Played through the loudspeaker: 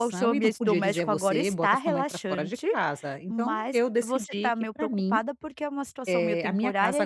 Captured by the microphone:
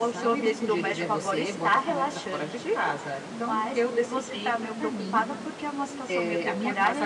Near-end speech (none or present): none